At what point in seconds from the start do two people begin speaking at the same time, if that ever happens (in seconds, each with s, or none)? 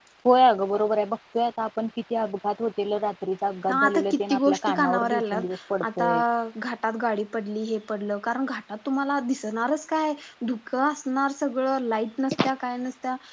3.7 s